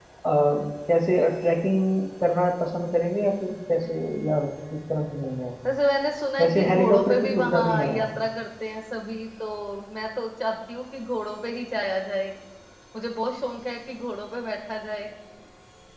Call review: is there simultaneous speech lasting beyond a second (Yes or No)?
Yes